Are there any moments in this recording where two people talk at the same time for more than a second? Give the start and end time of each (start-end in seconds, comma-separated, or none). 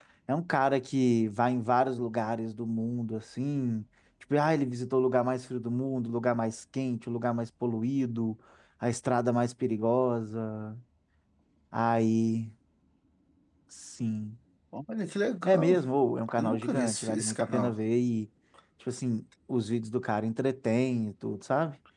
16.4-17.7